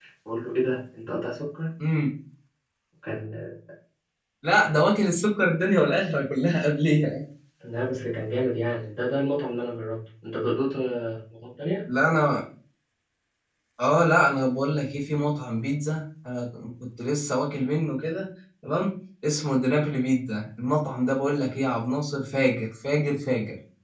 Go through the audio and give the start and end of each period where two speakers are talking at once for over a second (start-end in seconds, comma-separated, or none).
none